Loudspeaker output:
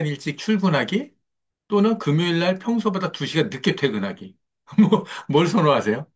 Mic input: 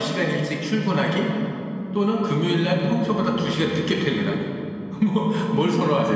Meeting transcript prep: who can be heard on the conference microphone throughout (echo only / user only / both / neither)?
echo only